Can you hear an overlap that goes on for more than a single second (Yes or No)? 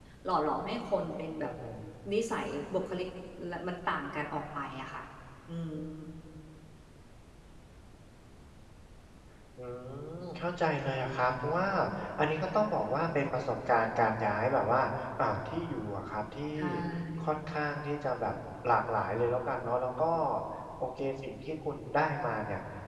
No